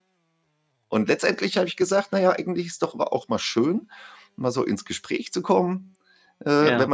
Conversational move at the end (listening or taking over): listening